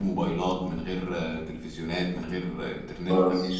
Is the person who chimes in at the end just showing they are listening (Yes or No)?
No